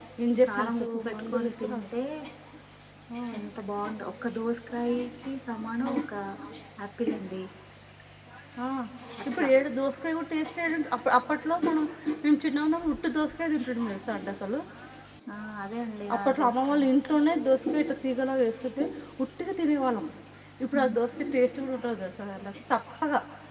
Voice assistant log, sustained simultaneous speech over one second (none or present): present